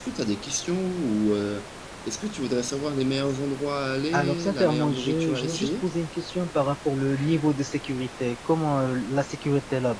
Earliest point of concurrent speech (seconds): 4.1 s

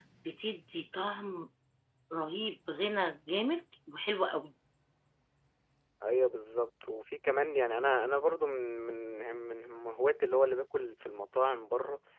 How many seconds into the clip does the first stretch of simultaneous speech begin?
none

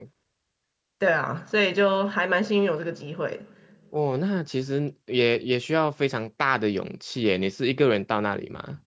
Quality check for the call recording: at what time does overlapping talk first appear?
none

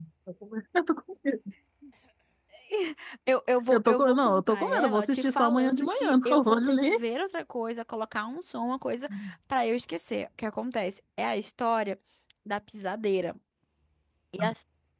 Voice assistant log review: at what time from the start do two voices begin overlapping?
3.7 s

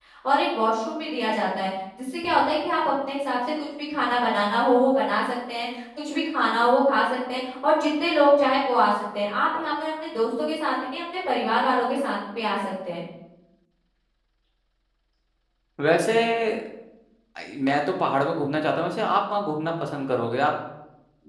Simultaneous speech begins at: none

